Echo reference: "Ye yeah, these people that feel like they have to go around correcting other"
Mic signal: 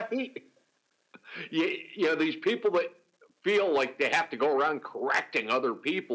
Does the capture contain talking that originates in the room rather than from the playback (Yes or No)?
No